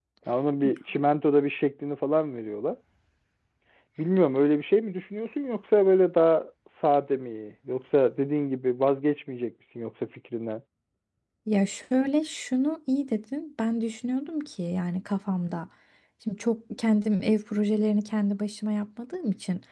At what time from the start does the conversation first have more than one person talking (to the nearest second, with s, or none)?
none